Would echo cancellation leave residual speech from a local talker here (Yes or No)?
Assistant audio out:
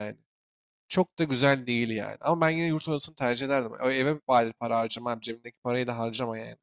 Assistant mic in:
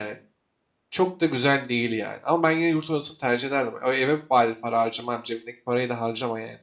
No